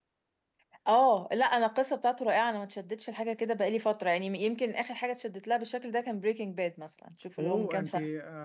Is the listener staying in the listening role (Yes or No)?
No